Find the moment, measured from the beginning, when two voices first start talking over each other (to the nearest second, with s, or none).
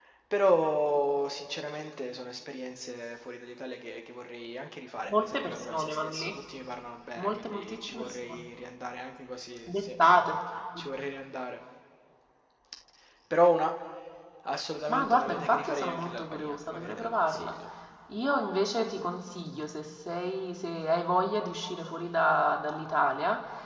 5 s